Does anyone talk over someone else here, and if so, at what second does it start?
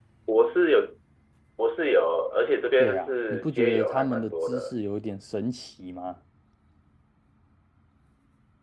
2.8 s

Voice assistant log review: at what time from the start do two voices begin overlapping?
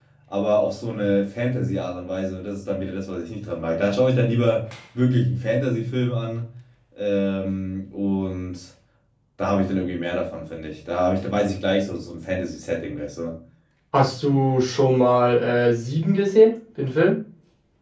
none

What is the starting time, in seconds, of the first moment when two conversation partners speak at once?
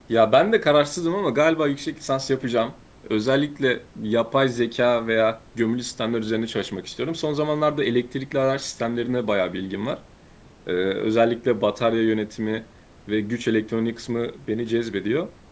none

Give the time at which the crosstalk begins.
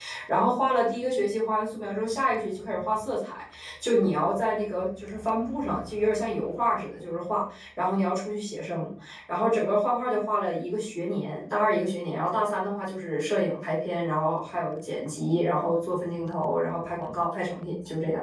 none

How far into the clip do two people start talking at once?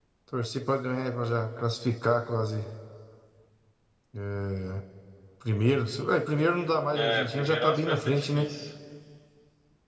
6.9 s

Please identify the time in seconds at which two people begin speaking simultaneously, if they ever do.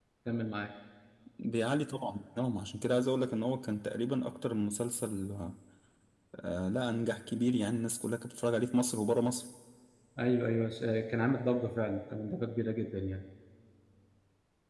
none

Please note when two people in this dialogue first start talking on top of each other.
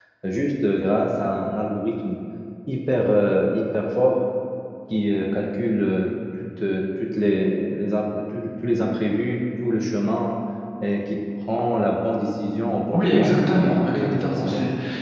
12.9 s

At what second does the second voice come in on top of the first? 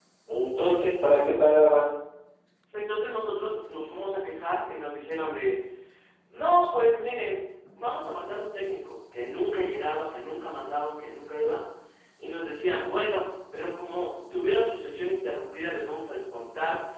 none

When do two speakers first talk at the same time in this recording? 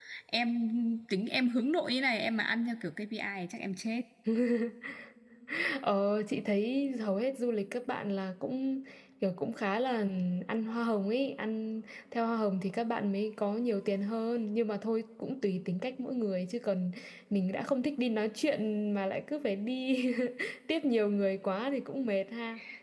none

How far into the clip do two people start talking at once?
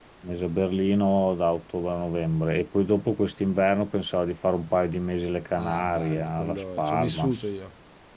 5.6 s

